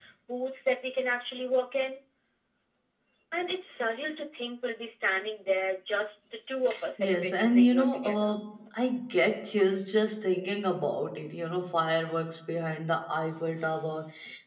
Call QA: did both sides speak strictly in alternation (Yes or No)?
No